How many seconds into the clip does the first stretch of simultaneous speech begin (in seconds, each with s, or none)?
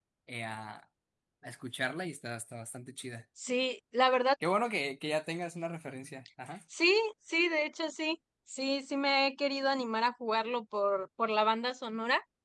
none